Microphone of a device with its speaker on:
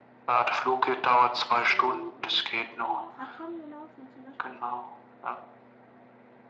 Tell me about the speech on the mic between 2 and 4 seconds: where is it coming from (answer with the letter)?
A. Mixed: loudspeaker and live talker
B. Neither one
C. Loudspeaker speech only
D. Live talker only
A